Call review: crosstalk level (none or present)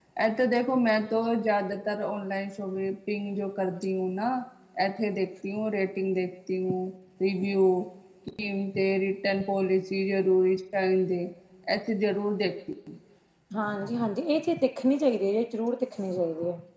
none